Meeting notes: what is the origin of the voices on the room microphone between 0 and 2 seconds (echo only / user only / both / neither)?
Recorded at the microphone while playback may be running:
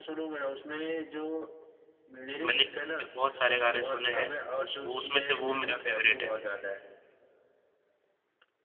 echo only